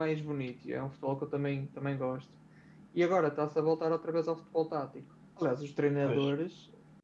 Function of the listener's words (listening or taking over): listening